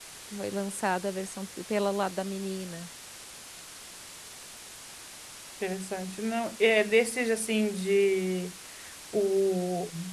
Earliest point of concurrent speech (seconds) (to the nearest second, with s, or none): none